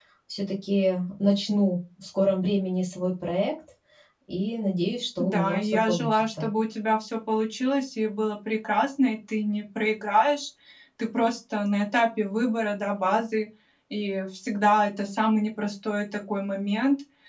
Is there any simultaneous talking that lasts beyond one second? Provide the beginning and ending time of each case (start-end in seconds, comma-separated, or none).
5.2-6.4